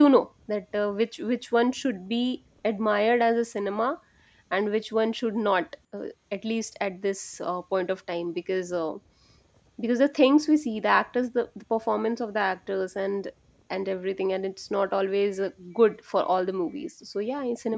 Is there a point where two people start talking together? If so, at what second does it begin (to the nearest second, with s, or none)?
none